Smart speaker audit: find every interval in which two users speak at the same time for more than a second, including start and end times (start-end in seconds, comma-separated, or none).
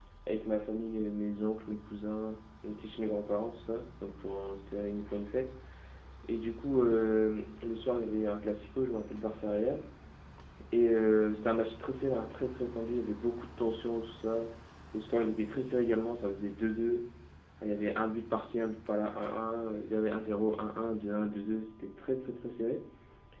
none